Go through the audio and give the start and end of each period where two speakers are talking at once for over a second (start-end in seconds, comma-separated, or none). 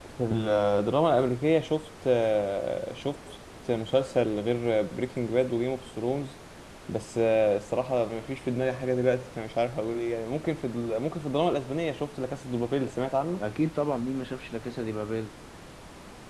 none